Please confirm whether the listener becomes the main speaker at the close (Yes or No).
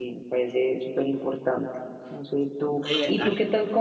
No